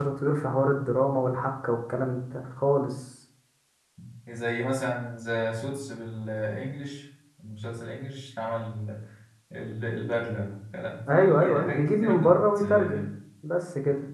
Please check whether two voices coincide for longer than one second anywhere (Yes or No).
Yes